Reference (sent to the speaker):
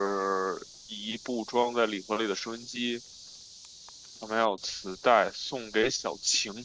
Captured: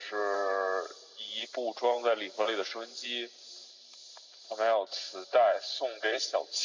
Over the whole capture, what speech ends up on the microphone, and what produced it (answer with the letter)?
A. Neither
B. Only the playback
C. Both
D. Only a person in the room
B